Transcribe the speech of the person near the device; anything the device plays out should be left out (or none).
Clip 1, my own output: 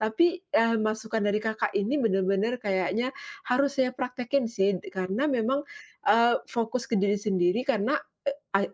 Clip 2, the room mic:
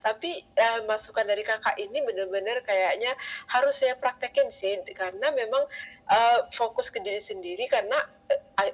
none